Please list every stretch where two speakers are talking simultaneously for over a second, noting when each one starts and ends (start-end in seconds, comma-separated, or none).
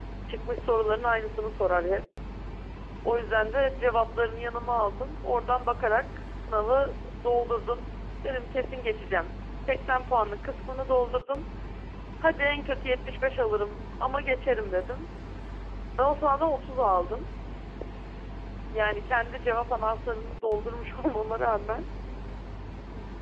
none